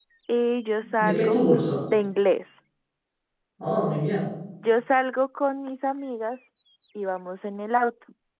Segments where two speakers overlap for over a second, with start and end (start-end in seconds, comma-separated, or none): none